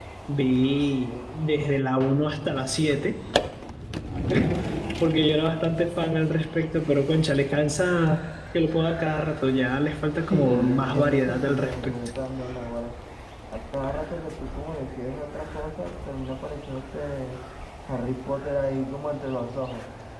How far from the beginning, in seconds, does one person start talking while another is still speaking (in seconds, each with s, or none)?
10.3 s